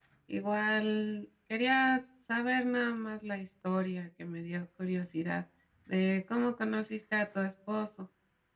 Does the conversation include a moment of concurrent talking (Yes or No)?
No